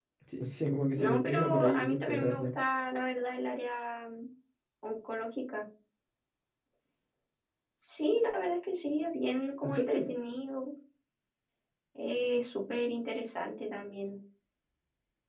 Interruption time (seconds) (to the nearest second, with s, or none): 1 s